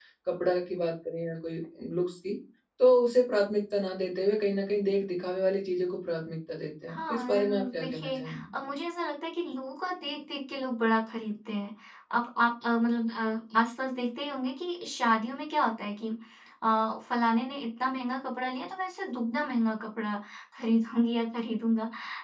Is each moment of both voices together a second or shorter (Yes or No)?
No